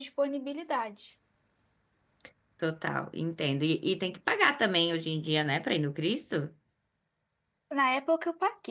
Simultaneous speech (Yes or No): No